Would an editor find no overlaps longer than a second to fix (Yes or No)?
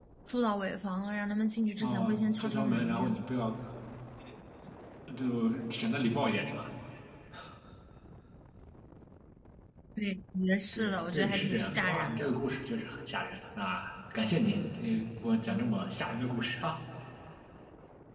No